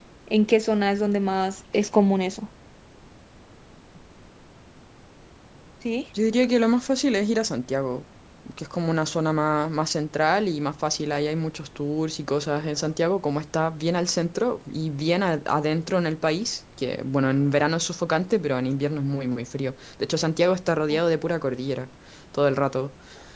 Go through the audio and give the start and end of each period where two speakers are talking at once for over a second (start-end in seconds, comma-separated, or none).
none